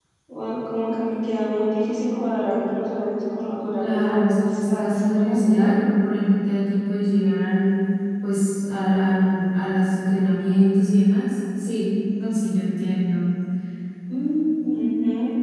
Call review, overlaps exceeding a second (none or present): present